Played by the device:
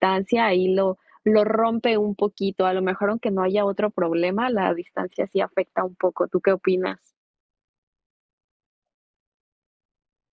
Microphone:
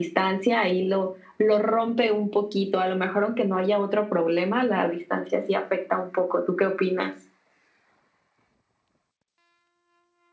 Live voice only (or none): none